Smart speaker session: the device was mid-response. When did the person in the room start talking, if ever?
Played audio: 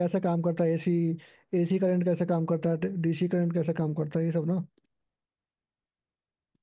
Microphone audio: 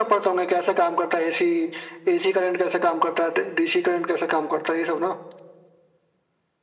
none

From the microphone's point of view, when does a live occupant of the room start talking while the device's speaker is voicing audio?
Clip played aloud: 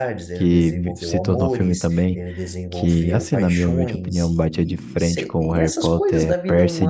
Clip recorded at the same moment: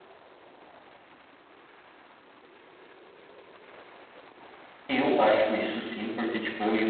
4.9 s

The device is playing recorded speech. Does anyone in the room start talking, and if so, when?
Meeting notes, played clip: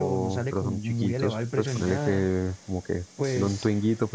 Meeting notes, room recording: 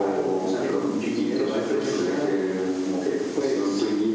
none

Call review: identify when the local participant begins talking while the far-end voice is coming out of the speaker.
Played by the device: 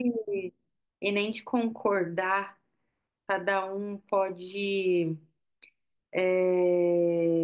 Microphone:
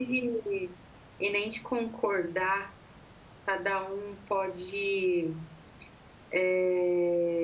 none

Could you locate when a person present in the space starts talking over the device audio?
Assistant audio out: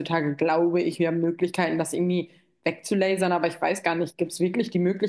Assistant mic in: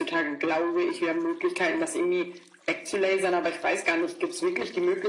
none

